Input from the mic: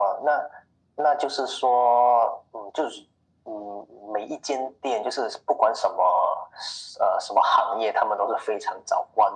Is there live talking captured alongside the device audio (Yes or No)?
No